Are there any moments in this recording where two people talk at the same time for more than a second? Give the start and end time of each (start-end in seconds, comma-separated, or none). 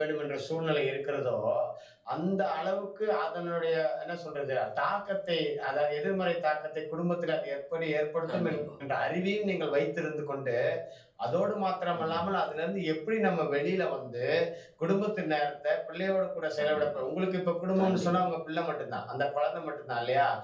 none